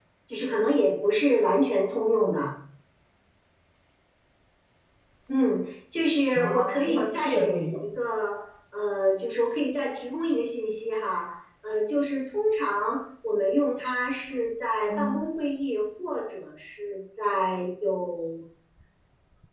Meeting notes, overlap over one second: present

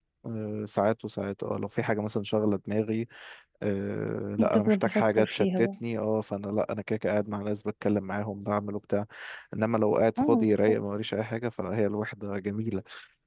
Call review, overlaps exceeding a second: present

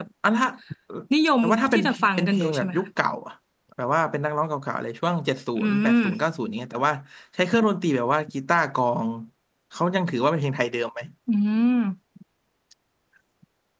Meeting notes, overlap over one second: present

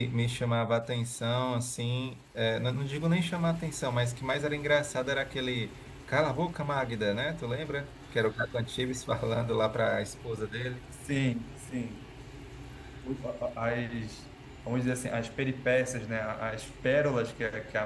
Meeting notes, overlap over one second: none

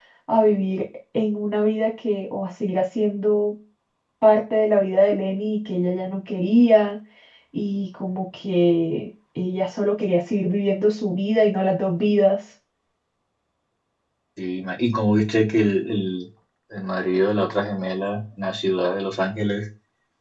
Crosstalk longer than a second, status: none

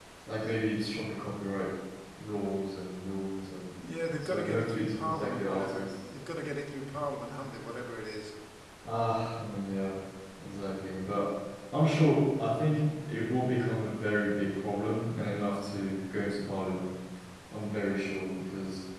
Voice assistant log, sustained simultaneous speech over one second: present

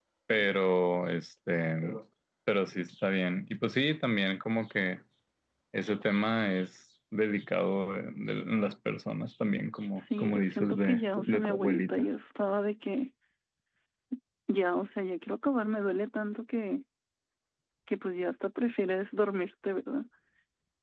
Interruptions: present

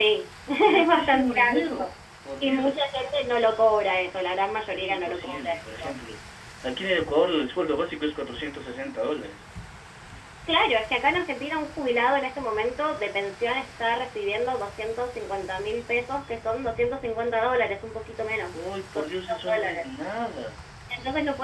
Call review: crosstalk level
present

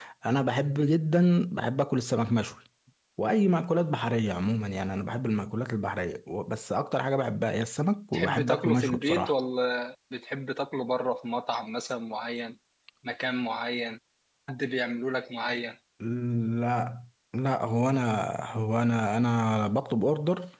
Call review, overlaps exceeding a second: present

